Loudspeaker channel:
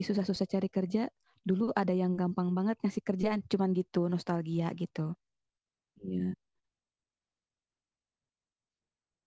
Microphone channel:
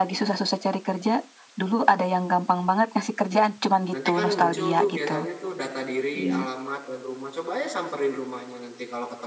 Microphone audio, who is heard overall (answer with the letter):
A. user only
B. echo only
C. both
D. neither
C